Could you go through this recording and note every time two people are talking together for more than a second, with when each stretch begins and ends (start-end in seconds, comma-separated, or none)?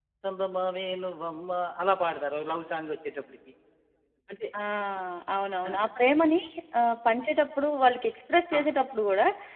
none